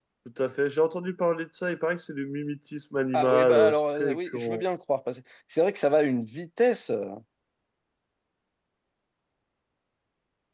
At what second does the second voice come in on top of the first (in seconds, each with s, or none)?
3.1 s